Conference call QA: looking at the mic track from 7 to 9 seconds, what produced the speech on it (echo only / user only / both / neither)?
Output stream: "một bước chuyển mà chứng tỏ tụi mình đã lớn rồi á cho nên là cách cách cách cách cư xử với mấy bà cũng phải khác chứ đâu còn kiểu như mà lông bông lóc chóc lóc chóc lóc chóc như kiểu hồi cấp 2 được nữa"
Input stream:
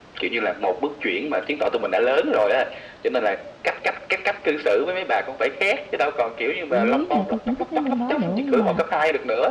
both